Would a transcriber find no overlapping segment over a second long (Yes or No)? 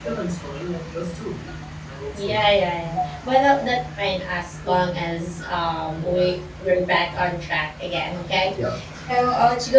Yes